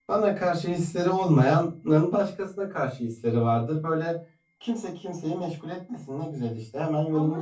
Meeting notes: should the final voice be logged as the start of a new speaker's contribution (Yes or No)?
Yes